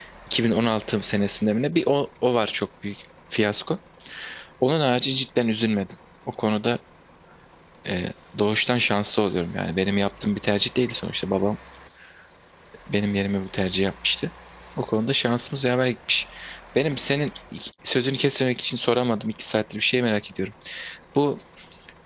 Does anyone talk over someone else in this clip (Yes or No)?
No